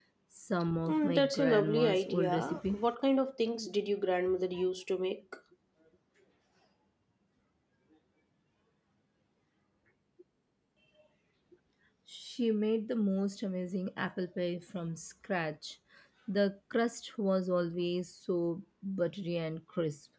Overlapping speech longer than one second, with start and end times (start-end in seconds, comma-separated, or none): 0.9-2.8